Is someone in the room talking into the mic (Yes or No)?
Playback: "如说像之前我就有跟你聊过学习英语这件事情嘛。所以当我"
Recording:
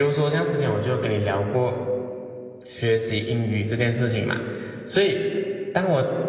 No